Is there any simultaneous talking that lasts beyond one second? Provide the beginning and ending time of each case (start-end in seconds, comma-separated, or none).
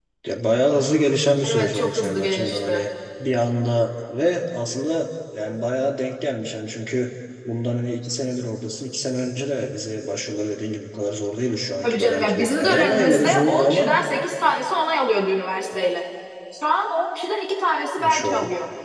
1.5-2.8, 11.8-14.0